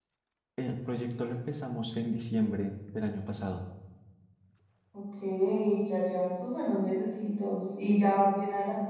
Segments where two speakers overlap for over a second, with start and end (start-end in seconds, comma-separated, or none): none